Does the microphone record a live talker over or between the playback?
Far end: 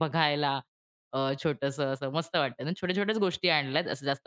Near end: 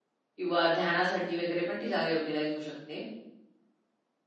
Yes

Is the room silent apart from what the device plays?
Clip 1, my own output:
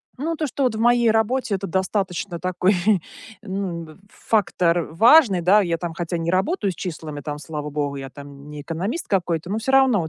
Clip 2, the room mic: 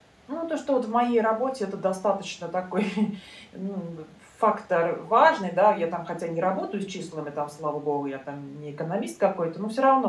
No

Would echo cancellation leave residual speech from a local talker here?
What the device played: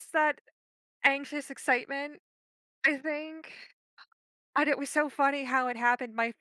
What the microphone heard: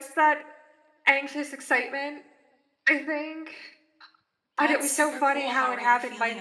Yes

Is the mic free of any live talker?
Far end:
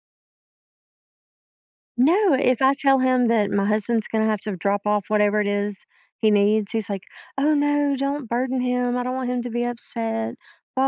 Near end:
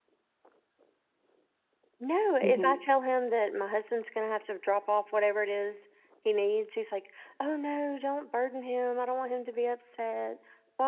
No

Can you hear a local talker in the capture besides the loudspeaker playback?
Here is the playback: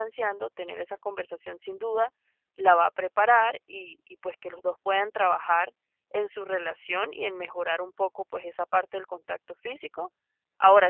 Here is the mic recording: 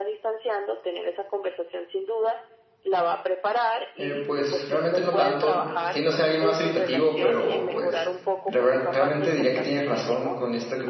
Yes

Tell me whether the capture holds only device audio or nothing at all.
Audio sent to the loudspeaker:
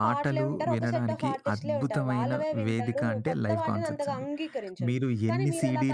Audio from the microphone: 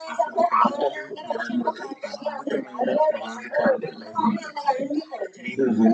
Yes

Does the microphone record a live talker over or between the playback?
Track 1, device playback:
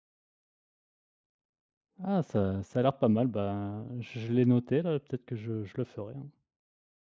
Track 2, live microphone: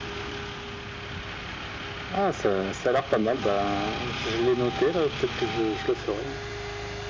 No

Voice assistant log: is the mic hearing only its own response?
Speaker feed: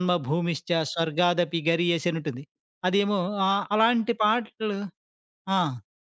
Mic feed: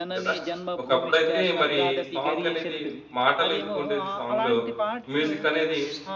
No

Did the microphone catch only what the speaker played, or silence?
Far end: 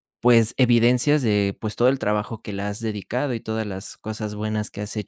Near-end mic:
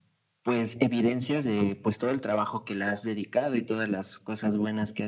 Yes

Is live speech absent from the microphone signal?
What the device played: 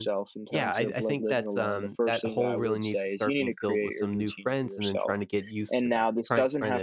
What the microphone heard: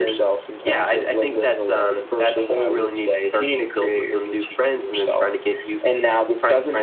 Yes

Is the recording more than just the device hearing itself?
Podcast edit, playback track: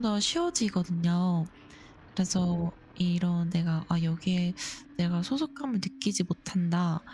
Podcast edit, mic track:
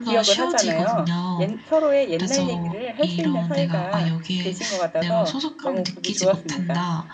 Yes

